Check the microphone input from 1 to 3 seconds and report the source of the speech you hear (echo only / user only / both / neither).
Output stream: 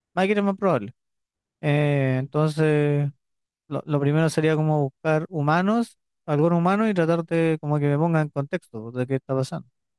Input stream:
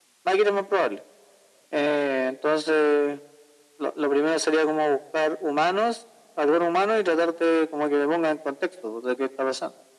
echo only